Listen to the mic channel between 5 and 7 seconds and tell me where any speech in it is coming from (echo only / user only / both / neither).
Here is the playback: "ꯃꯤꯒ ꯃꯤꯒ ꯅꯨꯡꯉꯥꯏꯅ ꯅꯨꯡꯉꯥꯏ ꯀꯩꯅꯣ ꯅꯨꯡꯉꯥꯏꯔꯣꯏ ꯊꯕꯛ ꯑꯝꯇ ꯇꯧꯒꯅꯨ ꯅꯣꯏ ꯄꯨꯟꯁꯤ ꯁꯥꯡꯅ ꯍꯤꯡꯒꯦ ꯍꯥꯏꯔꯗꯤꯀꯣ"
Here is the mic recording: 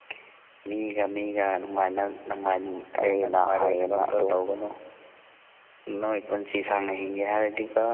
echo only